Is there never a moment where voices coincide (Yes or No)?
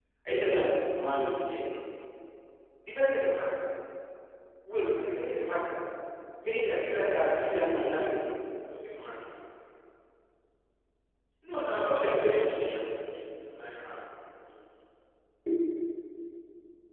No